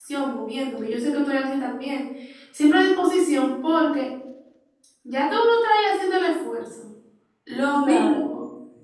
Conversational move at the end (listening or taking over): listening